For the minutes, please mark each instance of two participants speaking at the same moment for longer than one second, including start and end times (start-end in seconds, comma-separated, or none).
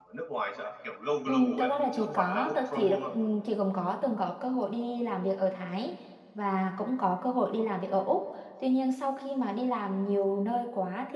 1.3-3.2